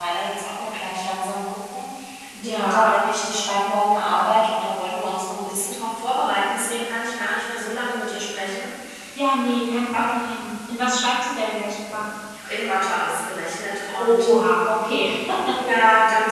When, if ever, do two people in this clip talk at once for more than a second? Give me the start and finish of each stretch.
none

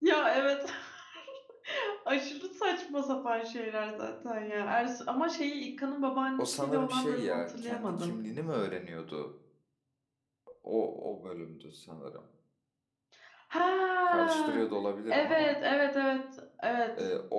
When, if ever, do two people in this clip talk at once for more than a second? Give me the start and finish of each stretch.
6.4-8.2

